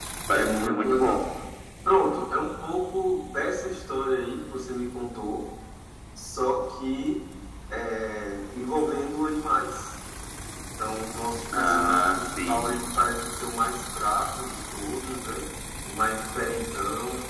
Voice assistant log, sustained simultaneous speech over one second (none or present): present